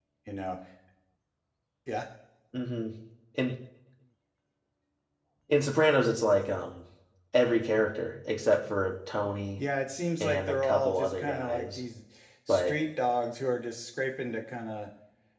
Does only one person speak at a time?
No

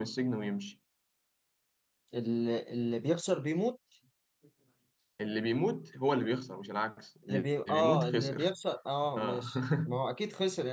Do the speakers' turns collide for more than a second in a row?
Yes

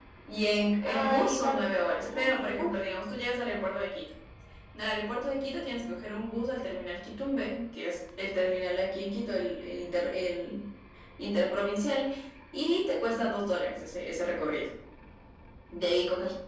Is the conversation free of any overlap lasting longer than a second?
No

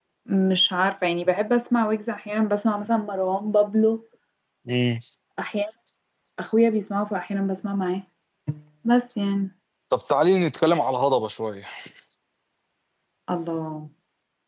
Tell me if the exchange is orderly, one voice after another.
Yes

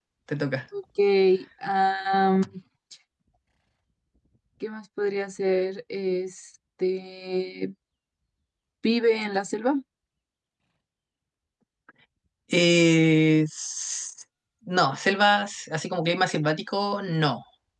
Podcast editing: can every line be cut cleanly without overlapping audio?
Yes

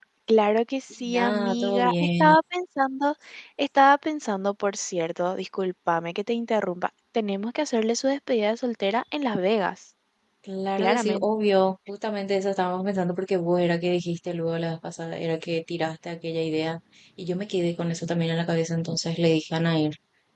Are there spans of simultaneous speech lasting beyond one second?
Yes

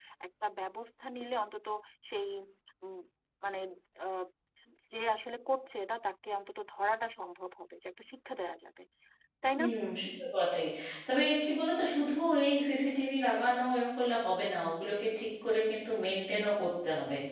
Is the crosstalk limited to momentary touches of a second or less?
Yes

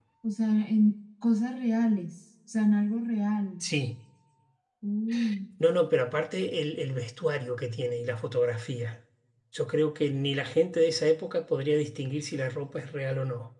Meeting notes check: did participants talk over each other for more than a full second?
No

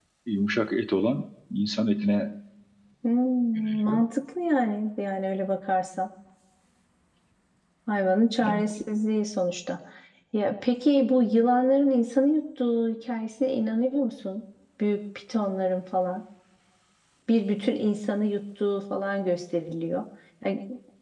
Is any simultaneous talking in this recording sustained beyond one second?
No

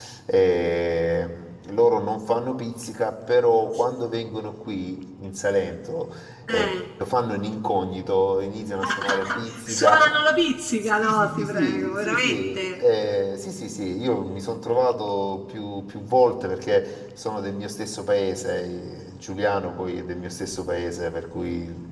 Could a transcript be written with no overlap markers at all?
No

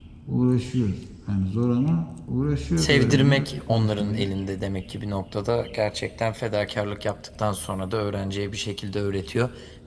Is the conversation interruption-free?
No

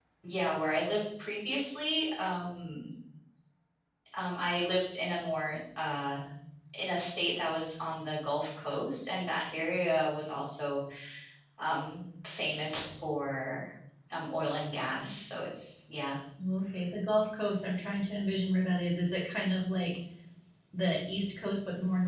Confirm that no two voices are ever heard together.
Yes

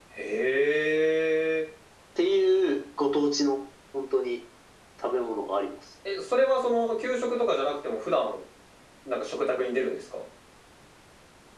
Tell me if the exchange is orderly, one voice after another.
Yes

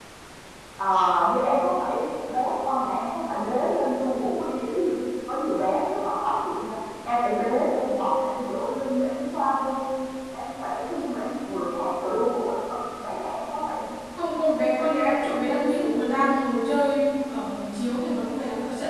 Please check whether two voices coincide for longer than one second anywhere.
No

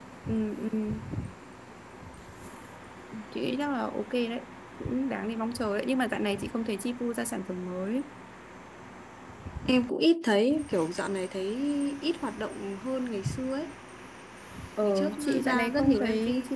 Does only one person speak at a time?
No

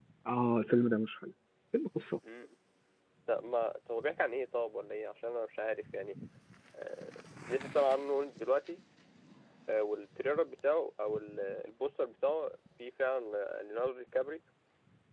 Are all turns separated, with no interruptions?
Yes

